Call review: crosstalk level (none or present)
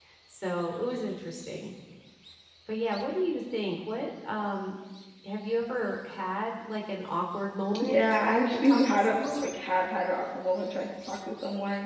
present